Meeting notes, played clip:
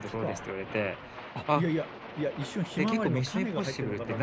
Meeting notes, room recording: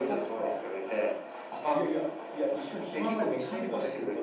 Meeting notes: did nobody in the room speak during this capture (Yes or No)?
Yes